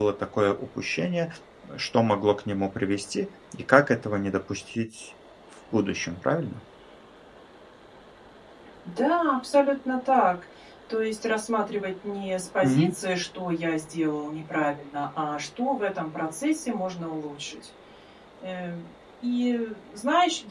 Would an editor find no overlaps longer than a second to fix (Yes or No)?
Yes